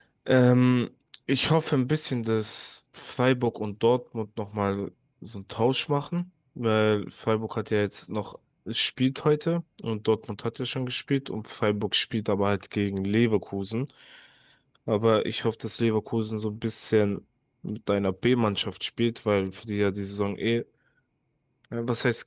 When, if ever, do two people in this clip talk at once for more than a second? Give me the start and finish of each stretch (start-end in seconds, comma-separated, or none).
none